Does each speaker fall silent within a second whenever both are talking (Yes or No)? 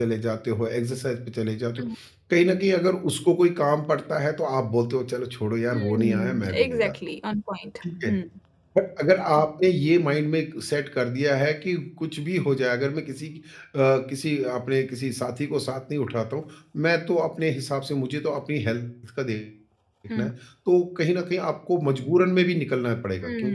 No